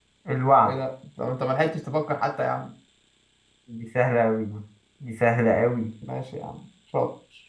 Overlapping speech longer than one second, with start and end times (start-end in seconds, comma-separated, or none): none